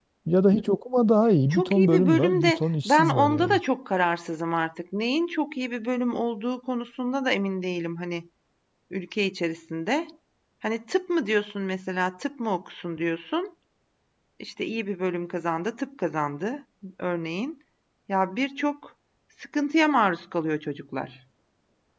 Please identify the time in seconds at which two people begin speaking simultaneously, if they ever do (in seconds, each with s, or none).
1.5 s